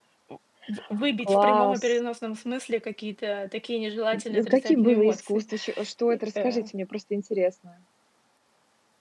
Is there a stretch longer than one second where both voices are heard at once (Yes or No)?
Yes